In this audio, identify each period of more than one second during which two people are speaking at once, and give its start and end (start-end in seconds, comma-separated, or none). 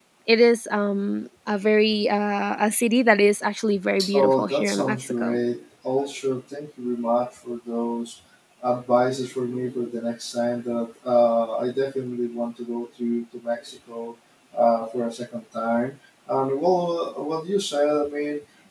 4.1-5.4